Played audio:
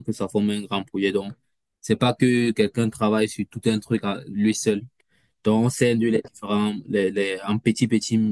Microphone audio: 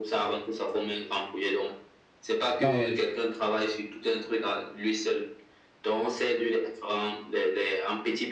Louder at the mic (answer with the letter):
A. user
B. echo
A